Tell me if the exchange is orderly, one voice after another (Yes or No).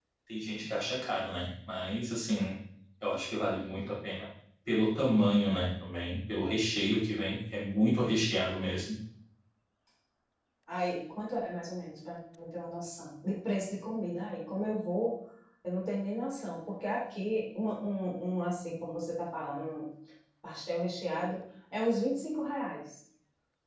Yes